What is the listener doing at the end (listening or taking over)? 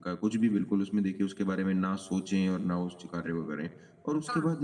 listening